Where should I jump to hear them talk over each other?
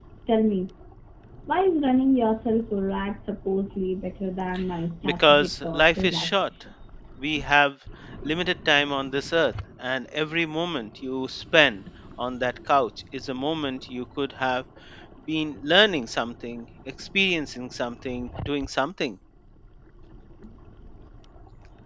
5.0 s

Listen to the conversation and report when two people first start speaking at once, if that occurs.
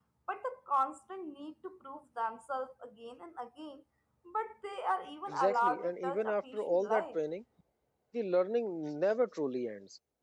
5.3 s

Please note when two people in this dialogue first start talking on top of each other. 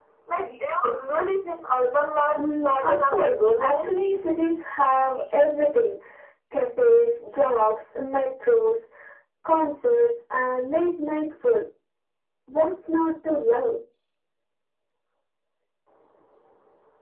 2.3 s

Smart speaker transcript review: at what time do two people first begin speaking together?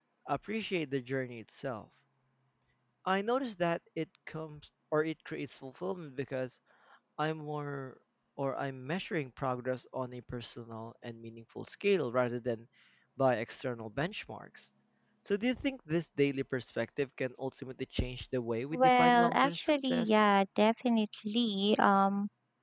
18.7 s

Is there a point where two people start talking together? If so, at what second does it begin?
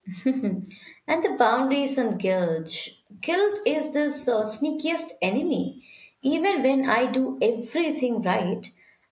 none

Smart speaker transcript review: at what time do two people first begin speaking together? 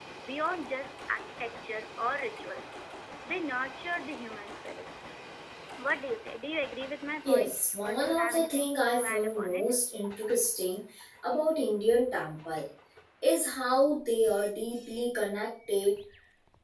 7.2 s

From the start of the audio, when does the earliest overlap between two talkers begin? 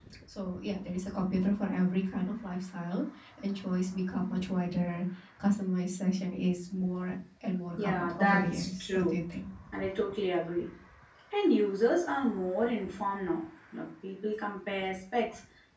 7.8 s

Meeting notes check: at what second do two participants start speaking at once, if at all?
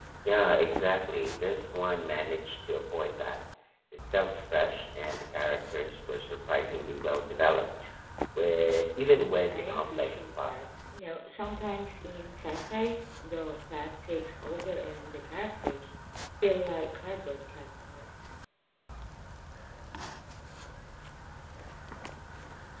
9.1 s

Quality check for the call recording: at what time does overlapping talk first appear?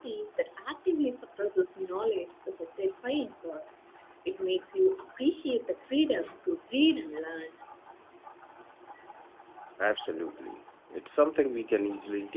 none

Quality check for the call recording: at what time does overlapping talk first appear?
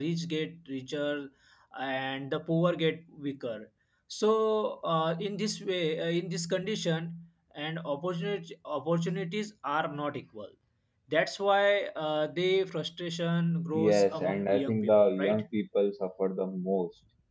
13.7 s

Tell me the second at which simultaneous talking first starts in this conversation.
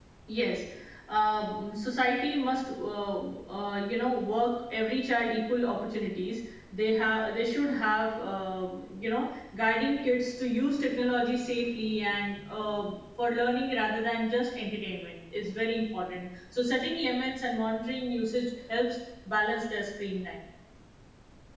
none

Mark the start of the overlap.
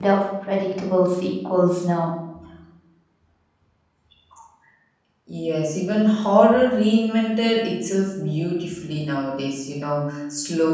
none

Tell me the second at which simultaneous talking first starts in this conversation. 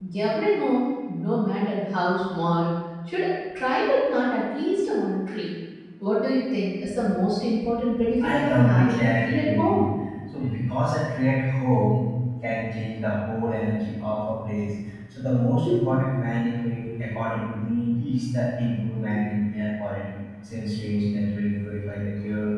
8.2 s

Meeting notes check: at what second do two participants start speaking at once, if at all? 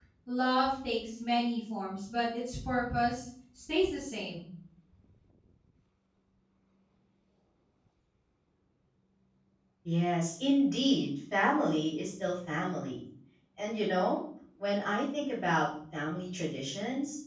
none

